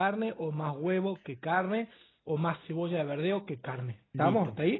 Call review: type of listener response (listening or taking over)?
taking over